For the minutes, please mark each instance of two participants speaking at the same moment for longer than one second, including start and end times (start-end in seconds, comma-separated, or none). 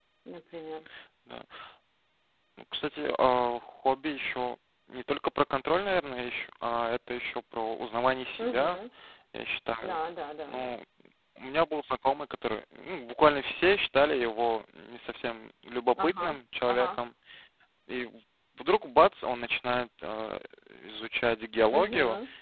none